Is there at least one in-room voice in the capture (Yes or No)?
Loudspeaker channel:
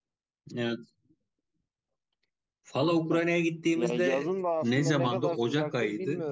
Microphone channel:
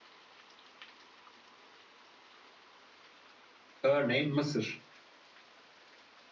Yes